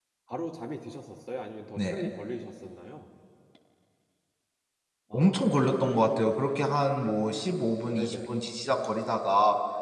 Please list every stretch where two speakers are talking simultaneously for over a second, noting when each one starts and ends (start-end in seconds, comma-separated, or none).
none